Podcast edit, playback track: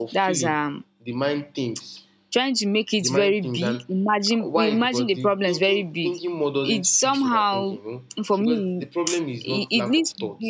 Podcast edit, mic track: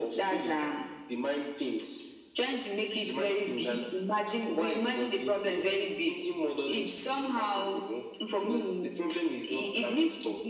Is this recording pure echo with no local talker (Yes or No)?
Yes